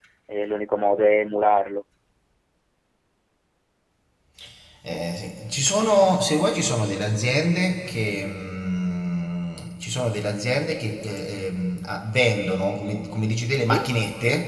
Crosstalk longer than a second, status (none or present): none